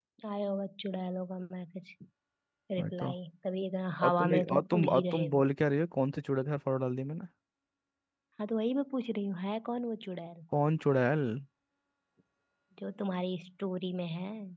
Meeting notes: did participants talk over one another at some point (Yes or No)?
Yes